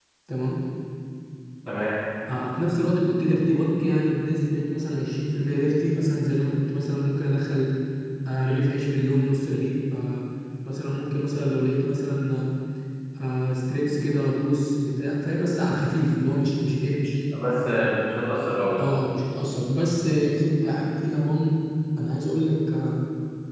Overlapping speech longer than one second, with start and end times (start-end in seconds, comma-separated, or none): none